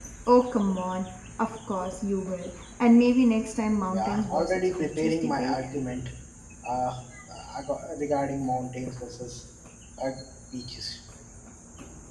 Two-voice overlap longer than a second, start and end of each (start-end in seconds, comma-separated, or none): 3.9-5.6